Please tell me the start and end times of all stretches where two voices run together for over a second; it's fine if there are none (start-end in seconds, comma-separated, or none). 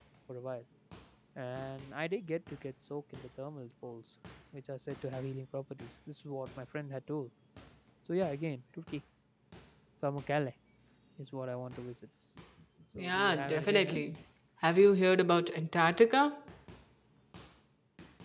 13.0-14.2